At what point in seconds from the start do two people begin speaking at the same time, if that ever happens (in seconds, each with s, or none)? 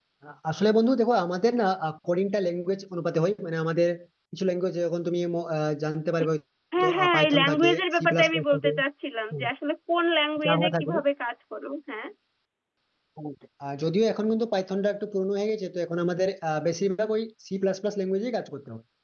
6.8 s